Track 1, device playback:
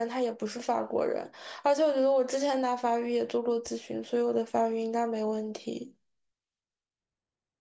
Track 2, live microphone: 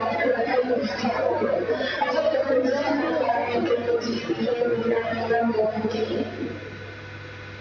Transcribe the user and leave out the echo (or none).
我从高中毕业之后在这里的，